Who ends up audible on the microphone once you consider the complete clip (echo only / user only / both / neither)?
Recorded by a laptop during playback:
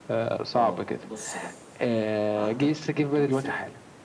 both